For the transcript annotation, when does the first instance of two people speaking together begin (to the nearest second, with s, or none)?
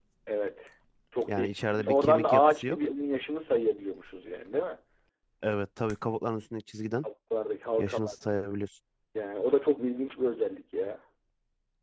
1 s